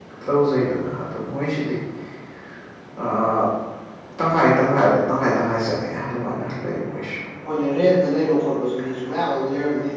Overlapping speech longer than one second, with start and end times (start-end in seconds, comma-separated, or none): none